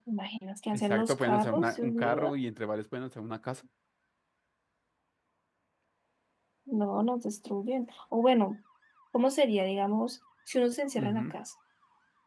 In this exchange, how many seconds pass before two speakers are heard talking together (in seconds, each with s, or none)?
0.7 s